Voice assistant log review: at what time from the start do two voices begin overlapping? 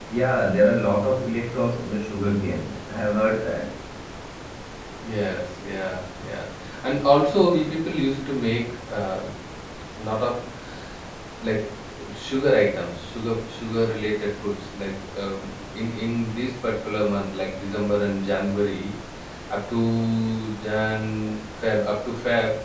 none

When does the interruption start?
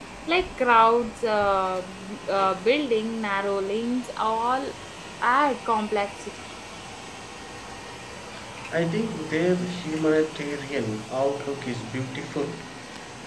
none

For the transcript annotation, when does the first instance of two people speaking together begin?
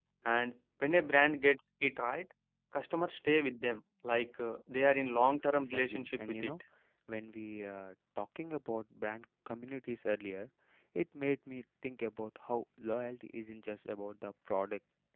5.2 s

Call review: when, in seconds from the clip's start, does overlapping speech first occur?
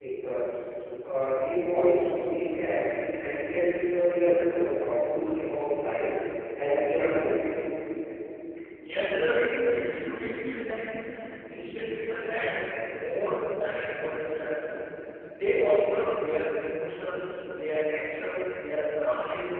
none

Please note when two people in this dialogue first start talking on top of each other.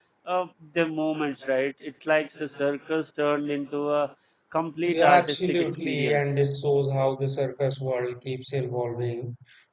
4.8 s

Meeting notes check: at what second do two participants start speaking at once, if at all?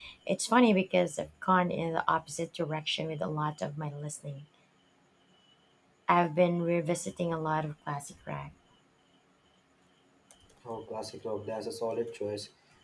none

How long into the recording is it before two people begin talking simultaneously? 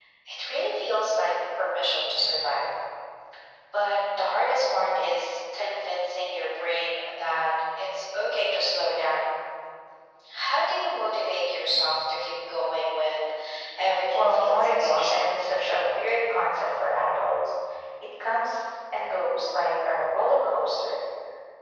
14.1 s

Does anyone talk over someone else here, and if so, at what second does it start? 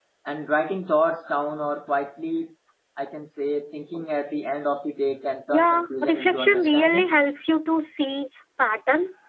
5.5 s

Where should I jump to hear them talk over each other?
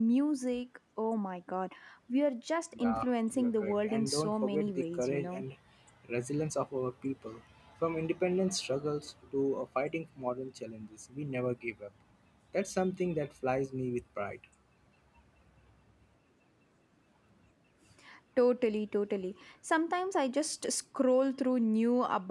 2.7 s

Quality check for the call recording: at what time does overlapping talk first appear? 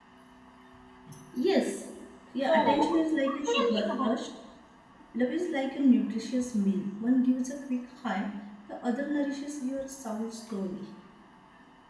2.5 s

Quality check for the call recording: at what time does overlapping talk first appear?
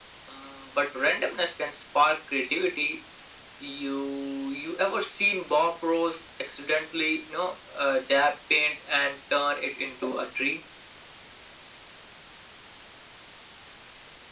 none

